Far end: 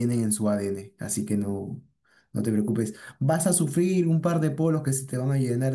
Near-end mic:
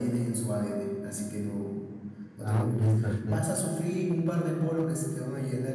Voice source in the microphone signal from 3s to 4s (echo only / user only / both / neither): both